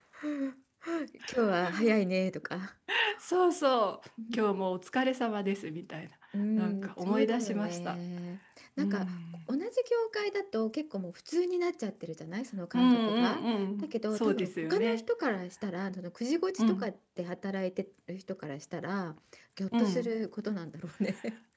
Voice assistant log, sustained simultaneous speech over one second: present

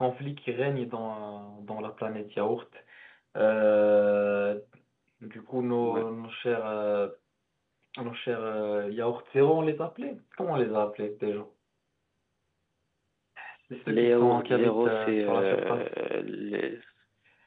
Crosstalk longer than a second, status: present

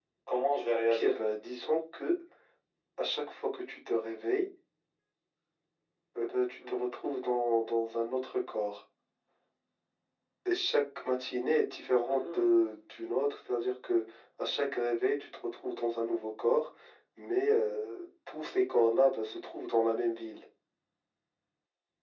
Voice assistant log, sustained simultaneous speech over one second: none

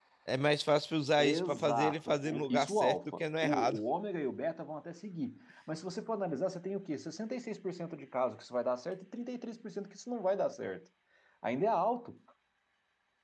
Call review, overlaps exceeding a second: present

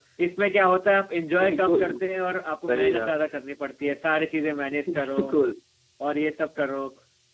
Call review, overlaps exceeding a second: none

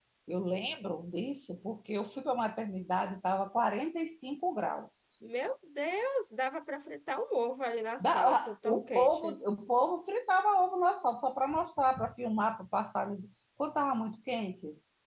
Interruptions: present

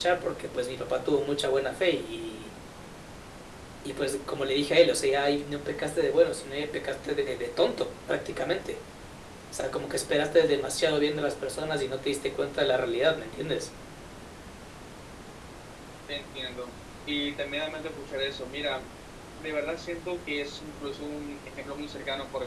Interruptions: none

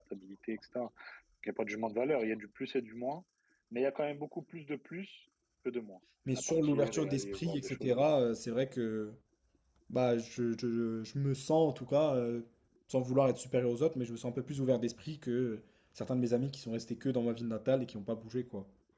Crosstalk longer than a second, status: present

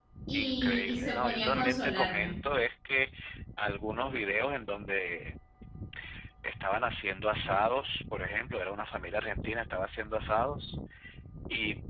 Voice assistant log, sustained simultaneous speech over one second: present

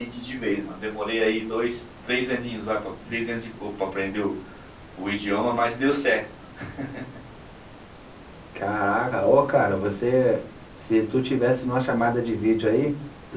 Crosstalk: none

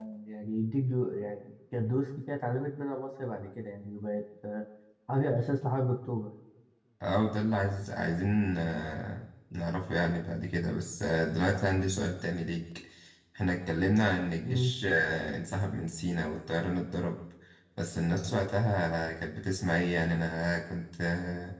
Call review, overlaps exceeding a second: none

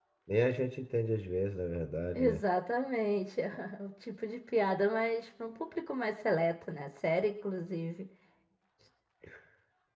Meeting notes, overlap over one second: none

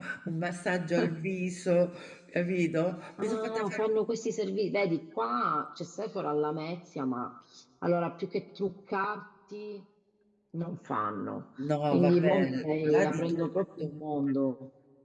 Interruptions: present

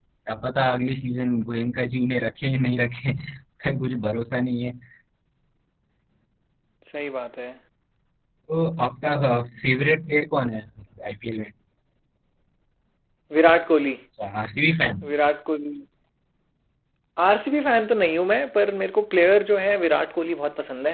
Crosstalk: none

